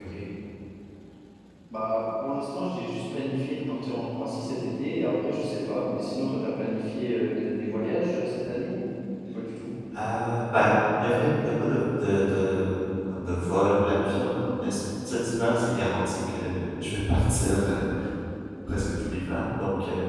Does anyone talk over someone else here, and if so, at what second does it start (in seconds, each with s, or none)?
none